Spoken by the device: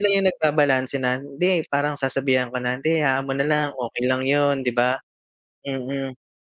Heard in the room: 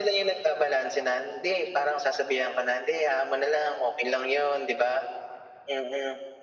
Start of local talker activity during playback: none

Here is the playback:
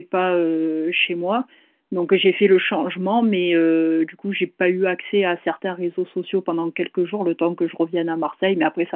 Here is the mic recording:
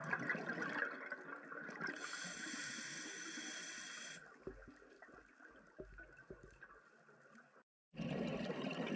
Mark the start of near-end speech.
none

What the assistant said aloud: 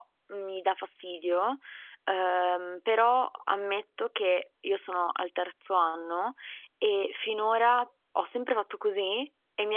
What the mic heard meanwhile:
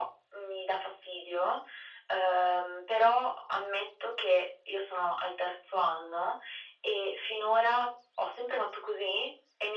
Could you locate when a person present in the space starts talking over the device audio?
none

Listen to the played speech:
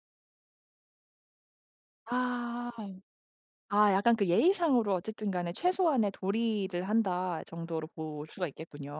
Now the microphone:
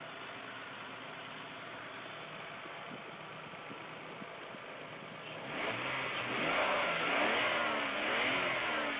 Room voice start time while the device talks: none

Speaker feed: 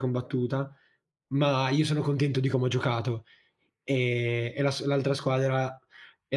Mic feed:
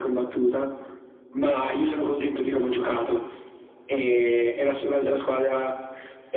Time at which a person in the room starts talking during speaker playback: none

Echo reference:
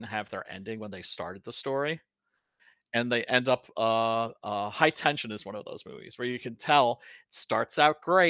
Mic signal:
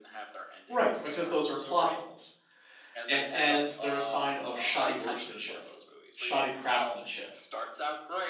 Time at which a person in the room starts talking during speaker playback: 0.7 s

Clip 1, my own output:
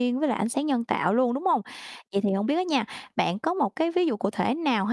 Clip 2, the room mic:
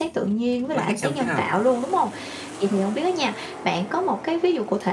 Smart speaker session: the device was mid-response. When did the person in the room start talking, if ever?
0.7 s

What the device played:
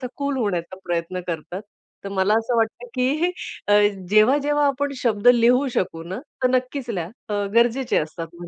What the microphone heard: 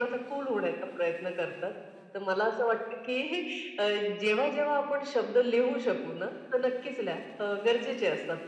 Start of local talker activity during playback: none

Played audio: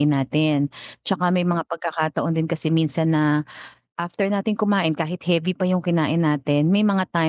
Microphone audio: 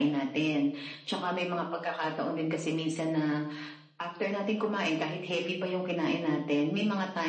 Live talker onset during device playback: none

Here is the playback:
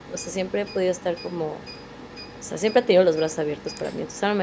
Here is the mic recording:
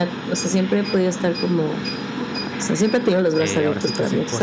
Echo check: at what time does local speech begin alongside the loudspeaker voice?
3.4 s

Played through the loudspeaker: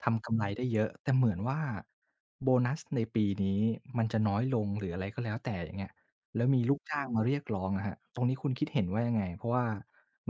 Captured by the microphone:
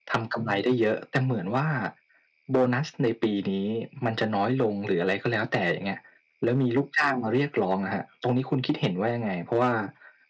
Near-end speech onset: none

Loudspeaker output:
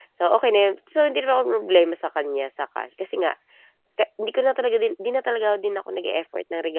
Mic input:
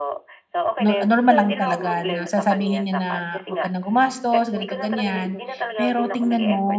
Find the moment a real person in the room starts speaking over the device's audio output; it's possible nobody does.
0.8 s

